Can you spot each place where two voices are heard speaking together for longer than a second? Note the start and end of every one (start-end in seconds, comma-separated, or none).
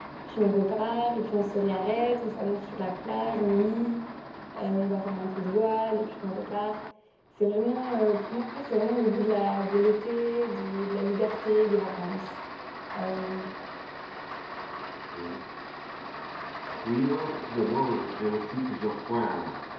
none